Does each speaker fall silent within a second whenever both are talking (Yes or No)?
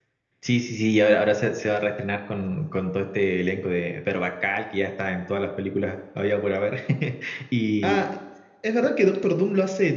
Yes